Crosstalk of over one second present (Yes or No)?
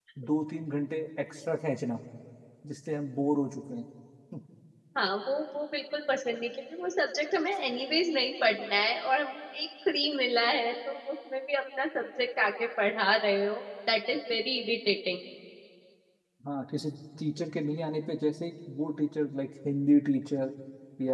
No